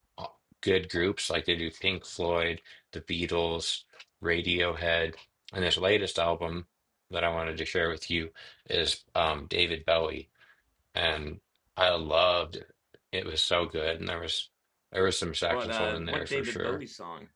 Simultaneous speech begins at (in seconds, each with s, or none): 15.5 s